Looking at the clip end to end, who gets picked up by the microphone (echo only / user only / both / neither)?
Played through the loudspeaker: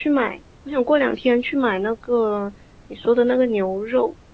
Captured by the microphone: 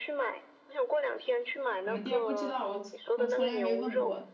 both